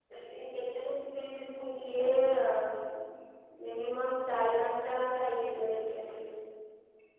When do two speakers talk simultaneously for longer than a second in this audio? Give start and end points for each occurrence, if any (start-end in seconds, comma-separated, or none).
none